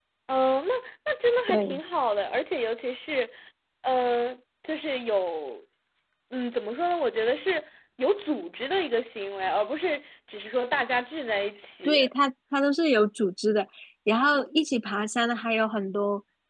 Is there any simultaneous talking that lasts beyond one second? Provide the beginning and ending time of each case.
none

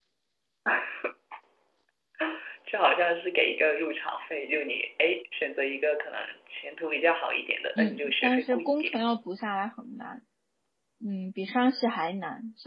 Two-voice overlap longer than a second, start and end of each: 7.8-9.0

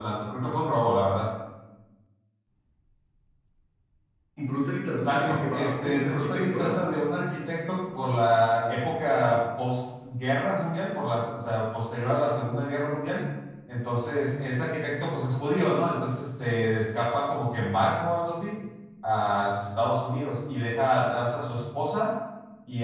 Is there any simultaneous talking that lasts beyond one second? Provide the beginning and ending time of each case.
5.0-6.8

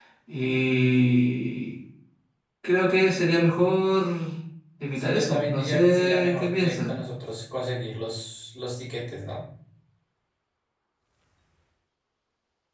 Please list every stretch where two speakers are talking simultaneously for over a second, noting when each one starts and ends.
4.9-6.9

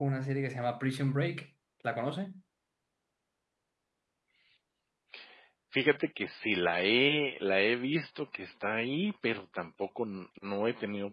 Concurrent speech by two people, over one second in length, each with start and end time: none

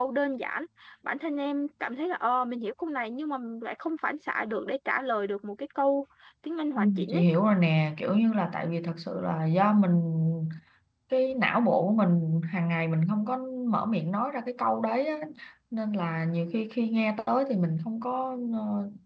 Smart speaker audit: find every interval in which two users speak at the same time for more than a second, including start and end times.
none

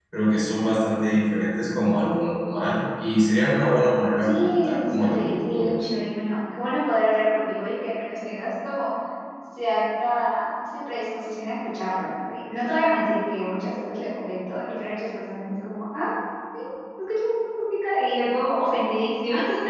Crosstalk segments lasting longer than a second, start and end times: 4.2-5.7

